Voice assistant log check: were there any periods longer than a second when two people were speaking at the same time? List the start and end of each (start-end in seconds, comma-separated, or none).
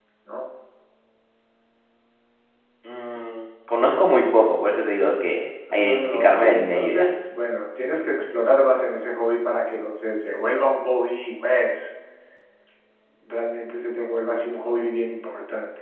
5.7-7.1